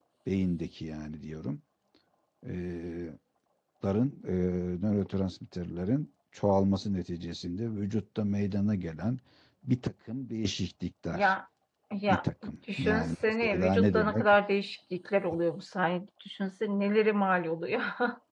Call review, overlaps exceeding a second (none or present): present